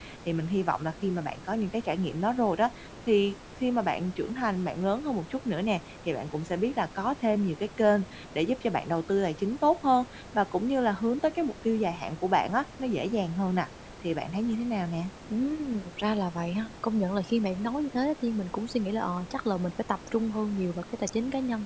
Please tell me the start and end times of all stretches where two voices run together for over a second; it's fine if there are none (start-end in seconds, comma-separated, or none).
none